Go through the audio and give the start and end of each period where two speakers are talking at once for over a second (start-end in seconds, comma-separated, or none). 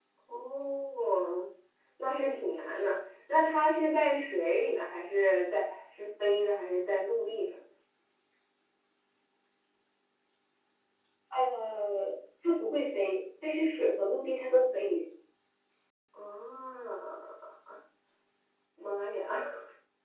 none